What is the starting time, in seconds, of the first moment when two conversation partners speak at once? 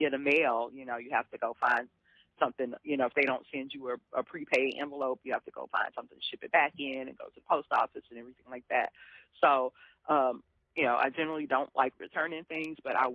none

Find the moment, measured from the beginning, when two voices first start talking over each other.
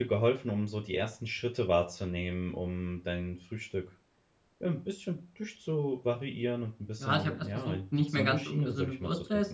7.0 s

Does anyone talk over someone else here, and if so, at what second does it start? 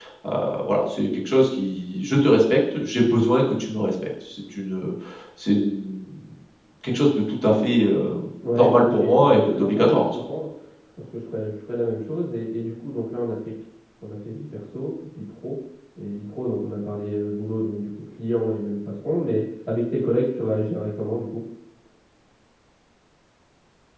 8.5 s

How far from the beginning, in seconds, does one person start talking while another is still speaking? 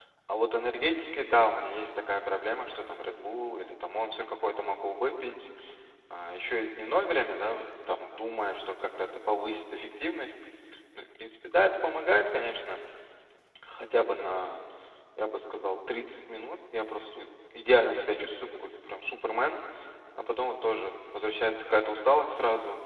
none

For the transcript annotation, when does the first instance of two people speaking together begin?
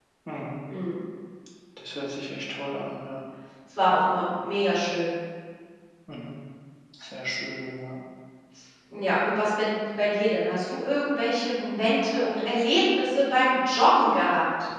none

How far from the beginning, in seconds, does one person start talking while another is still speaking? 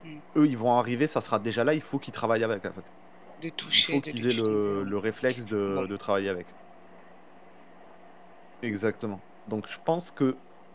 3.7 s

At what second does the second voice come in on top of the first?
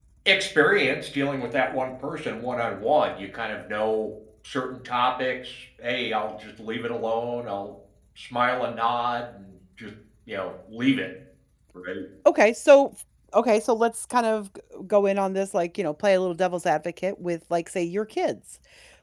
none

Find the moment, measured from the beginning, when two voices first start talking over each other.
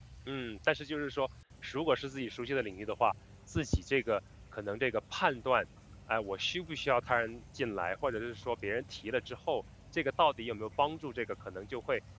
none

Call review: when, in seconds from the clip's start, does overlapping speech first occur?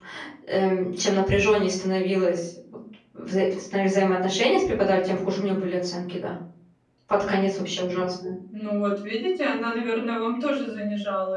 none

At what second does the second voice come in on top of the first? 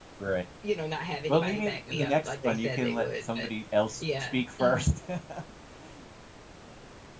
1.3 s

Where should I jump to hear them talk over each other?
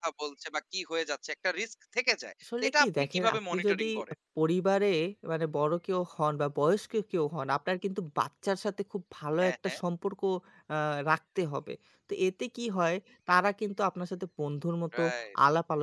2.6 s

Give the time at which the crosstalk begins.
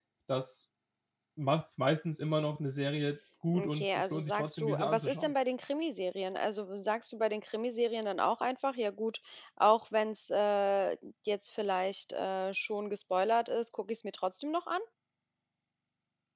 3.5 s

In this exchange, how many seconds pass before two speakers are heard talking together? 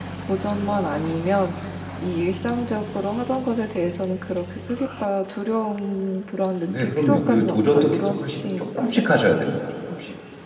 6.7 s

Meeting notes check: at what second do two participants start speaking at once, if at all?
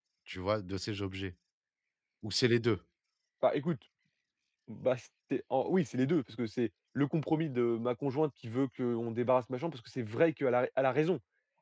none

